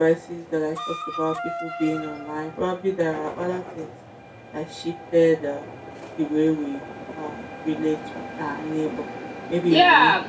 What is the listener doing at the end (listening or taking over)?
taking over